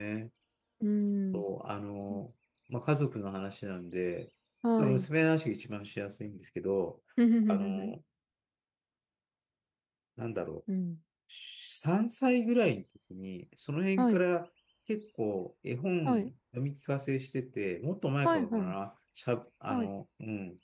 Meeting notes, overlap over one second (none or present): none